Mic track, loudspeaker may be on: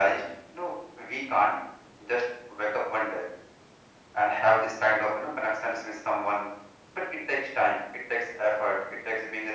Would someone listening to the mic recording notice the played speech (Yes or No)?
Yes